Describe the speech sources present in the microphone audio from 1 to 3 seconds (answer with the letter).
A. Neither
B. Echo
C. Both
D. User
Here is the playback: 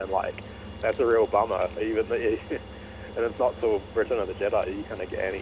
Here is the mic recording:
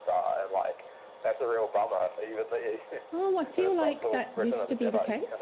B